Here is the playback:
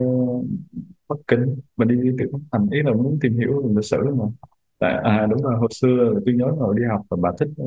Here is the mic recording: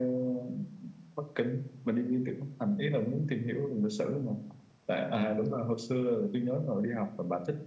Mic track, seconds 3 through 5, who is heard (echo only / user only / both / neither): echo only